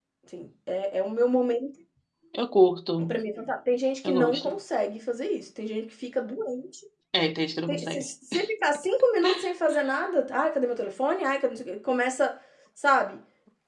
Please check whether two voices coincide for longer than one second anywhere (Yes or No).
No